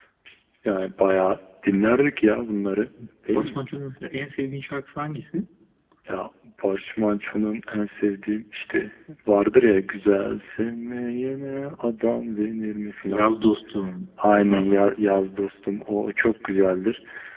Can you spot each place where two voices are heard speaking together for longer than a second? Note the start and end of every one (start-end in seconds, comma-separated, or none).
none